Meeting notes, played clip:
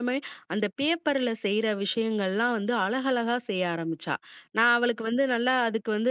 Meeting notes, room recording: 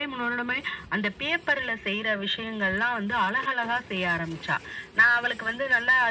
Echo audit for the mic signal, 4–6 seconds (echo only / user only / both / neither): echo only